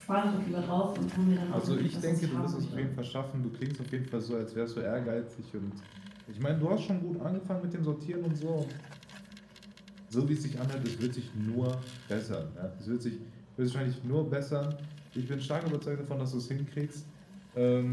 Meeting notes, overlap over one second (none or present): present